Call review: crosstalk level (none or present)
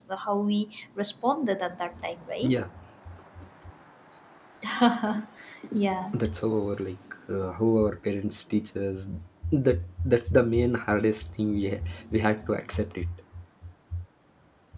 none